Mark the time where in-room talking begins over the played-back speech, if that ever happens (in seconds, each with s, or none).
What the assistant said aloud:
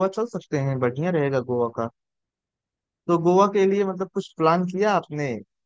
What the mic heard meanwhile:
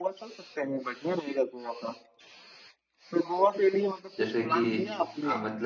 4.2 s